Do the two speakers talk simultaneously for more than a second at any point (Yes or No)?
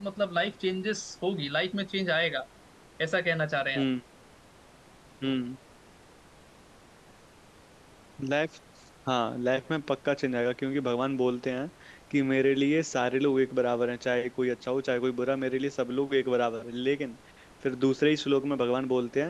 No